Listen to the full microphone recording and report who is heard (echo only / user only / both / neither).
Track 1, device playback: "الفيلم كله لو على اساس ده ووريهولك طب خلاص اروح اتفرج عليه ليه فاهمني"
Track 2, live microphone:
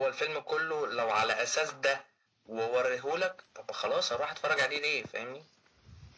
echo only